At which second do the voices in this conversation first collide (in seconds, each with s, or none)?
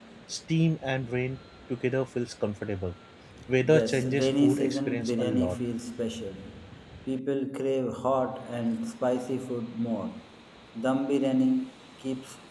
3.7 s